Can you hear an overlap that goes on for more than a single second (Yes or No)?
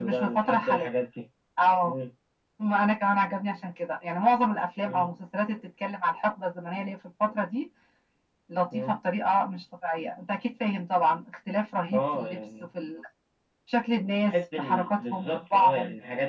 Yes